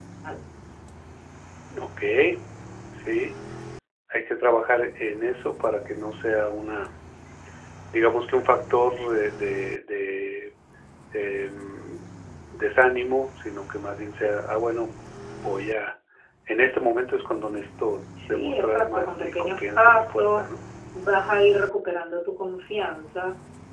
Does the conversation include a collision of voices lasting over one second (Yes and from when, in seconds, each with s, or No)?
Yes, from 18.2 s